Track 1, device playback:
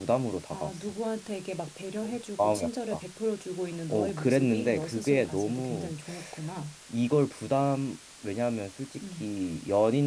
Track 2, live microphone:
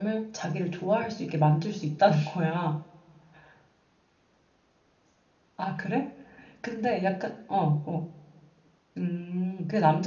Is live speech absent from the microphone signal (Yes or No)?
No